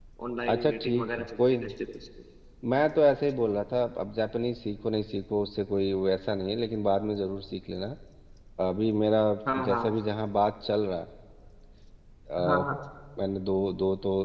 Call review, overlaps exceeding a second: present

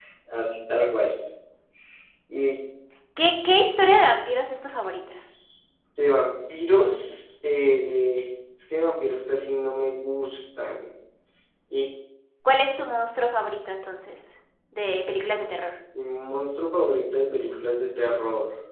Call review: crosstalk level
none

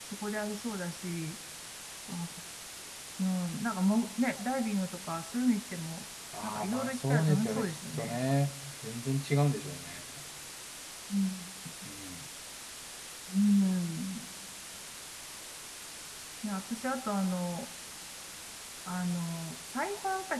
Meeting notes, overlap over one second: present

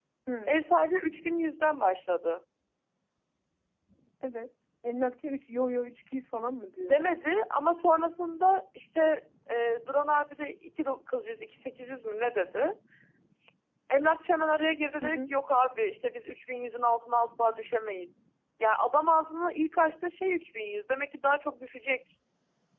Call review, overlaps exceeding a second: none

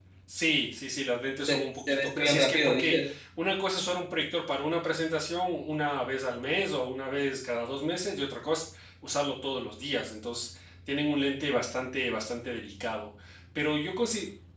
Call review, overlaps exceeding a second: present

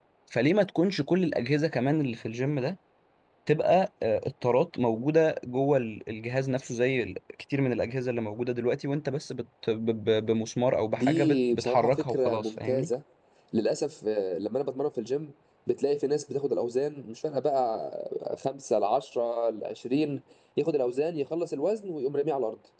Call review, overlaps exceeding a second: present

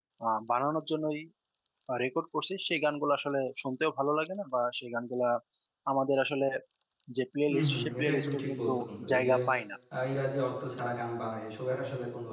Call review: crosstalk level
present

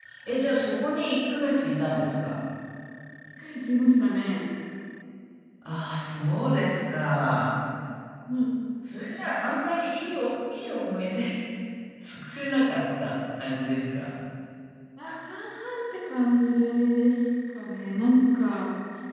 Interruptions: none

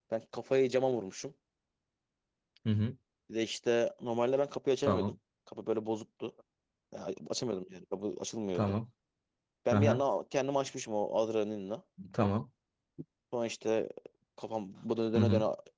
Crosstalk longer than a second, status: none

